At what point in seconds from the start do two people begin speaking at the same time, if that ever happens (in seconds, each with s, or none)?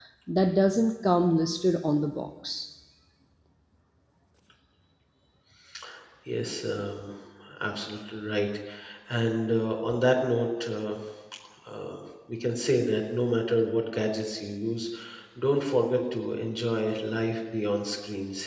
none